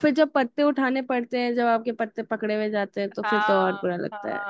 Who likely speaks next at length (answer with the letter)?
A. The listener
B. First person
A